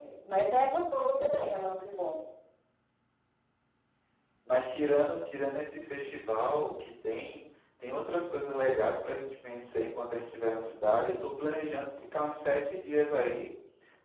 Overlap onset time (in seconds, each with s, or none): none